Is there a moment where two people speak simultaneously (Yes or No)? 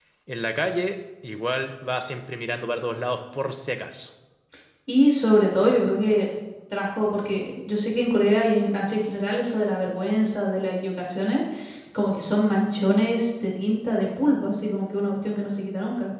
No